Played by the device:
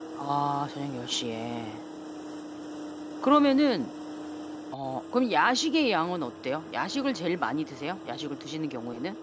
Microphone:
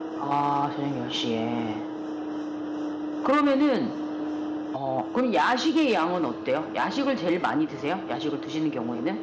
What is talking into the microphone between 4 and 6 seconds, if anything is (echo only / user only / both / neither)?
echo only